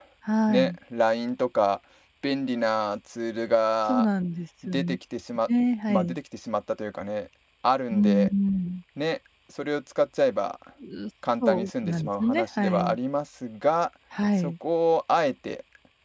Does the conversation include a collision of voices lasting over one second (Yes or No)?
Yes